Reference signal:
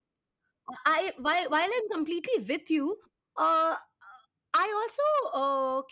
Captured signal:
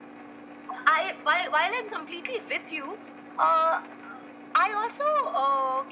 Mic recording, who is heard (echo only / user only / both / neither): echo only